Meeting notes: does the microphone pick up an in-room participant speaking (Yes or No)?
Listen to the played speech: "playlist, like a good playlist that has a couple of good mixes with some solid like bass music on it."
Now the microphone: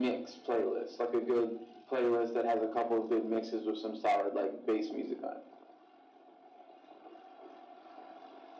No